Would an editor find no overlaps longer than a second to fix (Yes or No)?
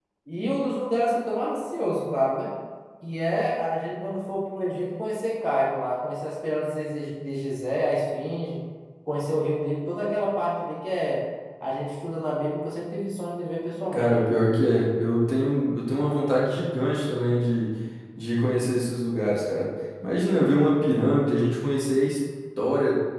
Yes